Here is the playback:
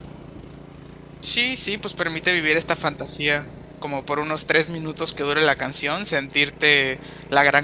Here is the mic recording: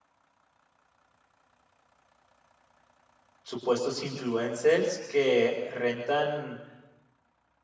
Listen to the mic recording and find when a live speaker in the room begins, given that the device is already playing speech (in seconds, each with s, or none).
3.4 s